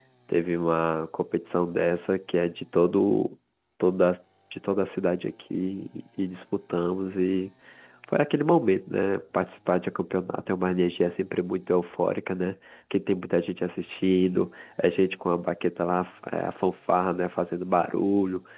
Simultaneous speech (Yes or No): No